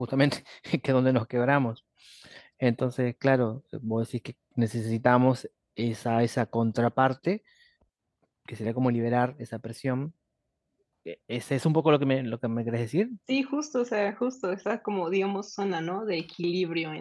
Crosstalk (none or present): none